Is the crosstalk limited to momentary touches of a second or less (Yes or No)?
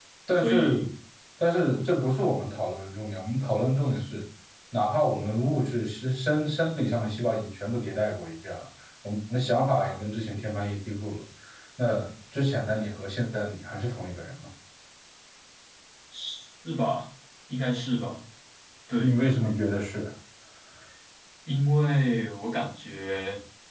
Yes